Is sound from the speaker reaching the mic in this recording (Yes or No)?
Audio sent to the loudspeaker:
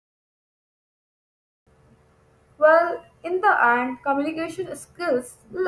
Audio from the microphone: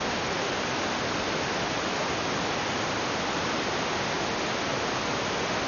No